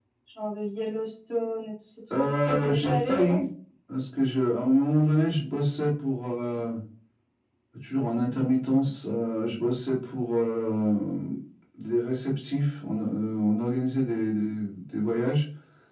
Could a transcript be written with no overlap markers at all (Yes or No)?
No